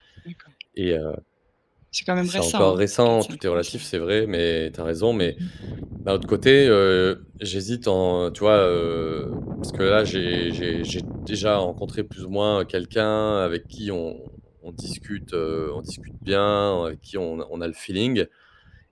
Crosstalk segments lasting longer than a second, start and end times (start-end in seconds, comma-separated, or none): 2.2-3.8